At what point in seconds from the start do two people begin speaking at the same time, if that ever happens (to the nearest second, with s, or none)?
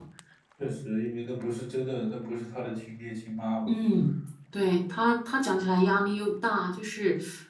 none